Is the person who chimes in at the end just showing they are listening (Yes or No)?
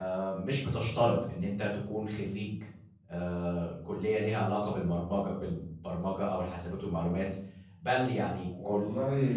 Yes